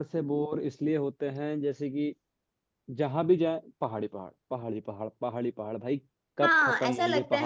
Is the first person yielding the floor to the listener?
Yes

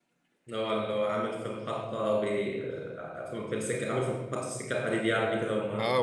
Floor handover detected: Yes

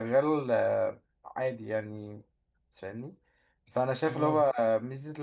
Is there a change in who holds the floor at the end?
No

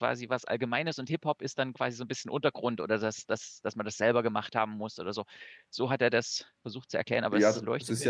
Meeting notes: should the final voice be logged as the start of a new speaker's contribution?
Yes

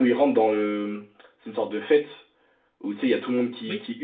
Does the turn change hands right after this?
No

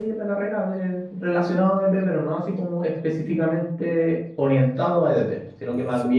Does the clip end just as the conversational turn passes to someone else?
No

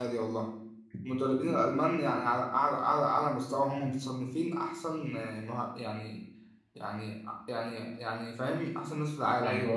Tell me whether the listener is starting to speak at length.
Yes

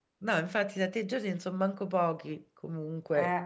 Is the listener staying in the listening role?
No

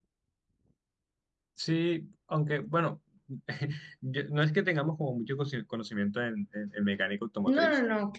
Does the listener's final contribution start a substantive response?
Yes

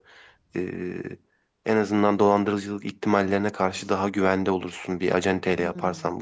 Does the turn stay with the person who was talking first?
No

